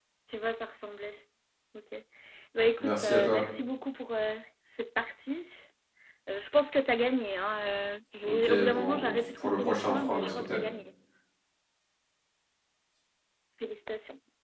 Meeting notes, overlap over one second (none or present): present